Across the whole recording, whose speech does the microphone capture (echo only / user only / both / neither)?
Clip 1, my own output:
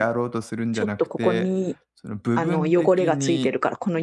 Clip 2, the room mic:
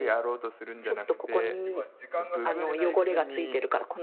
both